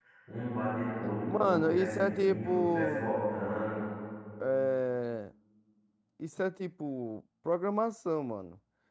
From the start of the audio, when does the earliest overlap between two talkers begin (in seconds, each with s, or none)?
1.3 s